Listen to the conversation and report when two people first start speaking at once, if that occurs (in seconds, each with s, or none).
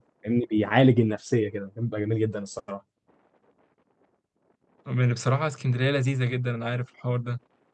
none